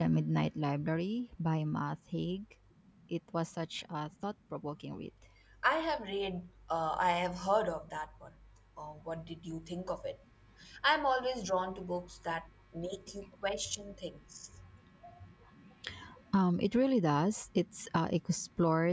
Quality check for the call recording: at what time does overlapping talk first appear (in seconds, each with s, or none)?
none